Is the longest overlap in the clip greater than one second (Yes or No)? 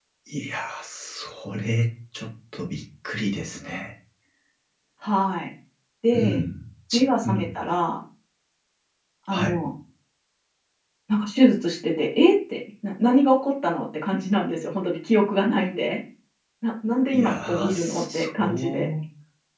Yes